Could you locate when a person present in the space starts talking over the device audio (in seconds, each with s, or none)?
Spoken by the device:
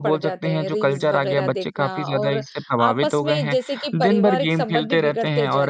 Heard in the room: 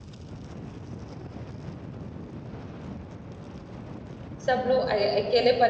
4.5 s